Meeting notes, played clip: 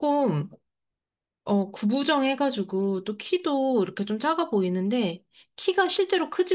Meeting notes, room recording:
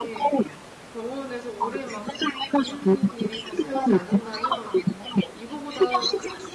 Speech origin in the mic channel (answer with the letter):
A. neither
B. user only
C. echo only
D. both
D